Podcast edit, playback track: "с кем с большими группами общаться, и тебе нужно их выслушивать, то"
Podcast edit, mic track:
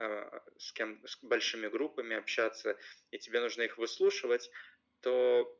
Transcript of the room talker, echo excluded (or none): none